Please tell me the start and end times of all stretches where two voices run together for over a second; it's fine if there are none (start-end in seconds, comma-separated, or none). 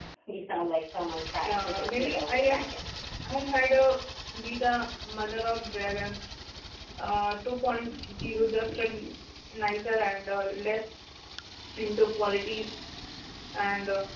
1.4-2.6